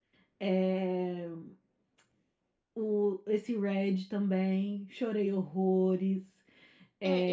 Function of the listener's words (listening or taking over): taking over